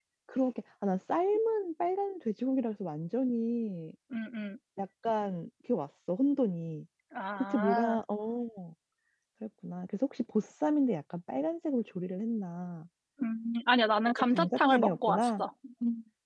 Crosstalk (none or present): present